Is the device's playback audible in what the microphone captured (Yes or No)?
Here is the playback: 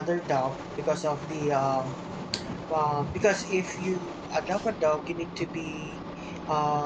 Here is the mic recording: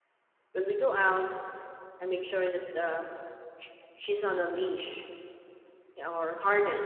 No